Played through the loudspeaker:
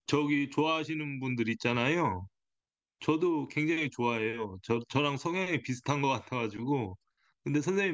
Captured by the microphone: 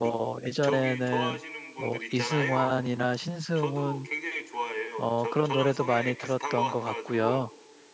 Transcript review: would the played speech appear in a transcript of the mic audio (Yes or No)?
Yes